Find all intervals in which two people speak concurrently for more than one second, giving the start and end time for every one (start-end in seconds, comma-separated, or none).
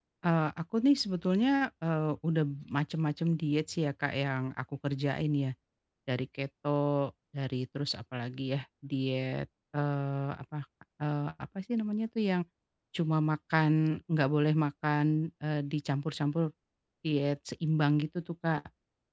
none